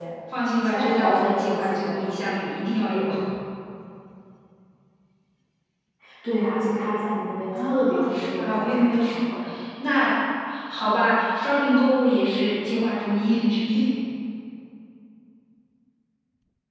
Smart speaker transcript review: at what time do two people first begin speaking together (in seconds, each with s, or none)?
0.6 s